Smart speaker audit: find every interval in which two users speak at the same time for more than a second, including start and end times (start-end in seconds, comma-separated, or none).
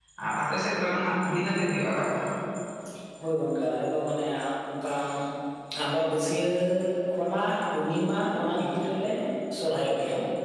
none